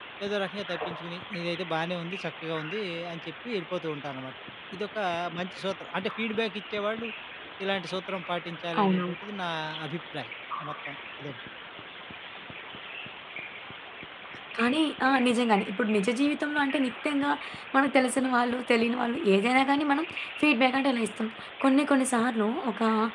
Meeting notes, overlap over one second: none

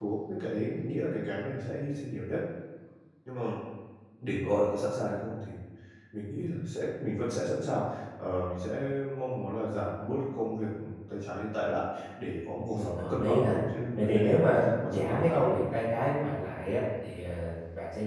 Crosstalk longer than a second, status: present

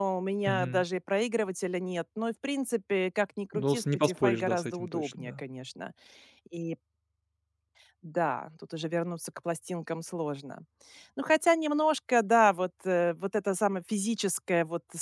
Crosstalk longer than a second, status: present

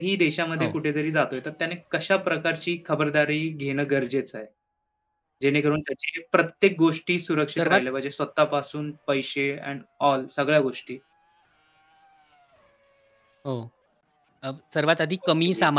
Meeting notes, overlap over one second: none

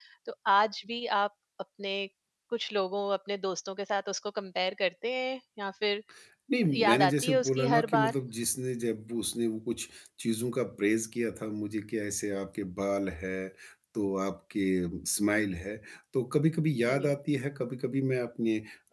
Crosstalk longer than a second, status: present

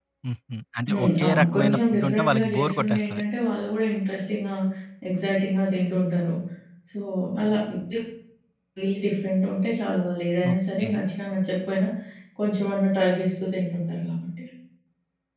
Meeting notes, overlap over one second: present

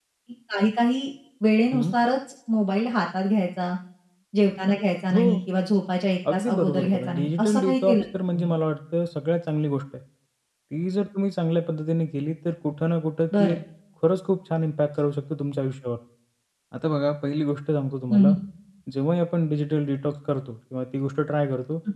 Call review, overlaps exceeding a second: present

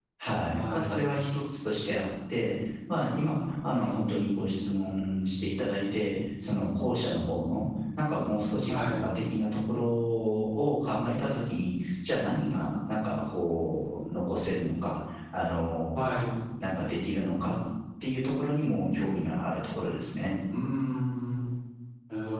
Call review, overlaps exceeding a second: none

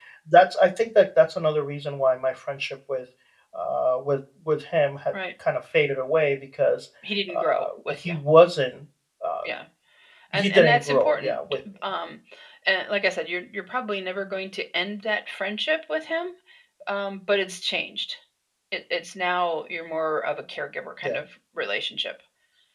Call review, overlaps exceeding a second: present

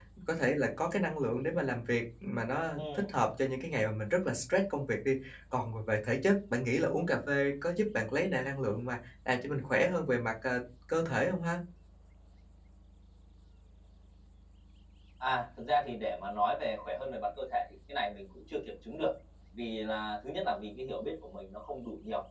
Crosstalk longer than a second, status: none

